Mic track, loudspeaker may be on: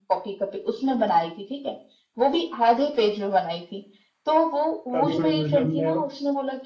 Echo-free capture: No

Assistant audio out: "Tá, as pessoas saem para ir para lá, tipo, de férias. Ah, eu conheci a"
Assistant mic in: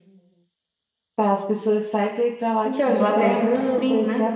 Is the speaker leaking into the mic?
Yes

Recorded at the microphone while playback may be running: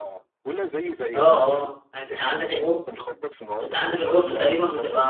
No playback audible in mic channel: No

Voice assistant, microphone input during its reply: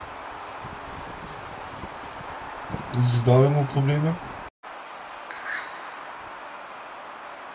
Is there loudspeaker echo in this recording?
No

